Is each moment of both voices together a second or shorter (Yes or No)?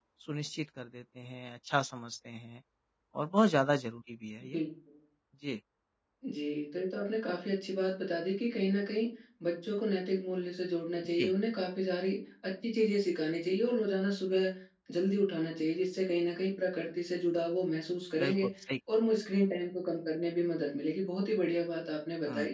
Yes